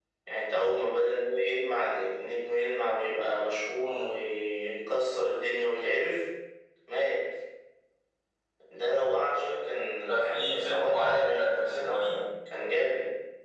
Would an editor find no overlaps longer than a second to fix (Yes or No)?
No